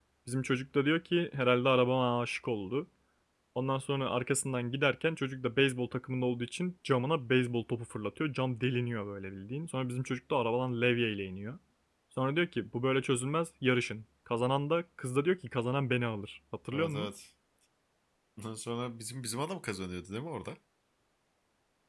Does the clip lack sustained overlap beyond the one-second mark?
Yes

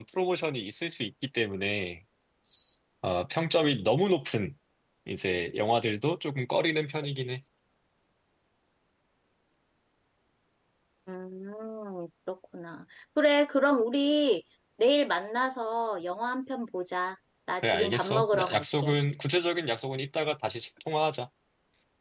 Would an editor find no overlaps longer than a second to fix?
No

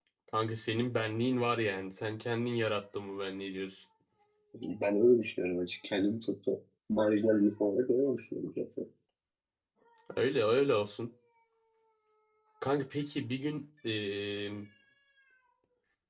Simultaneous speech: No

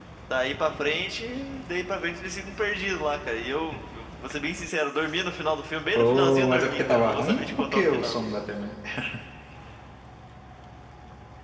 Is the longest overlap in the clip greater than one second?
Yes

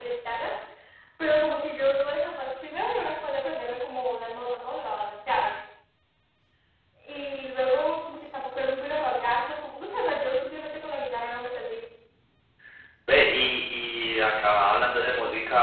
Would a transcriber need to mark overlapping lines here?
No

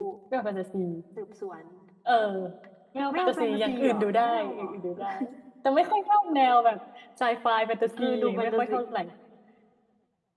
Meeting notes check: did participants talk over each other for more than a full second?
Yes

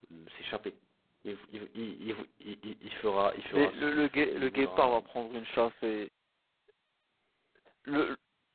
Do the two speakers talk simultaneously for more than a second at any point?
Yes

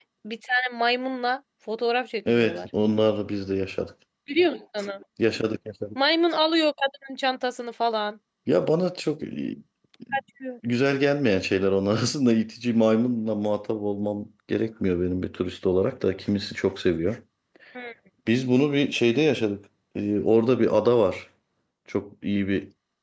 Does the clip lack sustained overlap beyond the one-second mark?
Yes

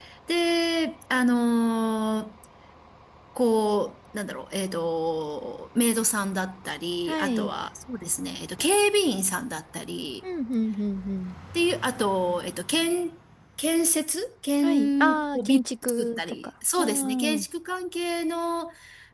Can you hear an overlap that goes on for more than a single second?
Yes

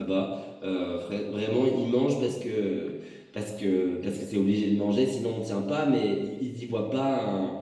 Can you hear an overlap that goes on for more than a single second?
No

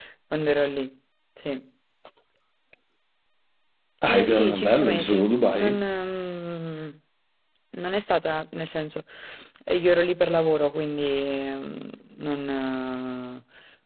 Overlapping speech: Yes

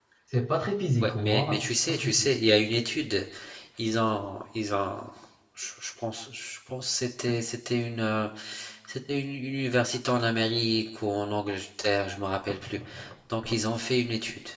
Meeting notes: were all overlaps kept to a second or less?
No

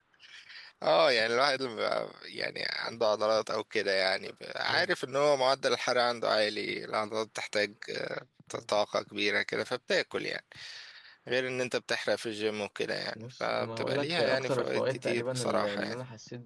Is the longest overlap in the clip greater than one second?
Yes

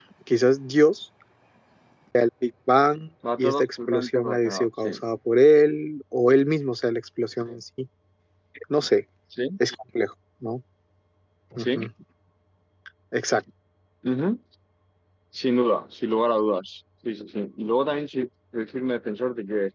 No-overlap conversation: No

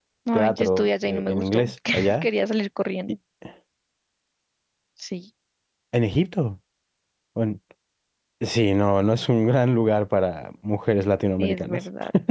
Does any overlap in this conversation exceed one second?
Yes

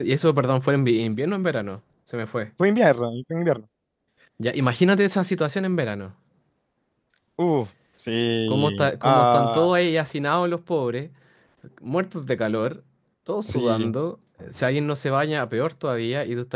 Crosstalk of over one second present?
Yes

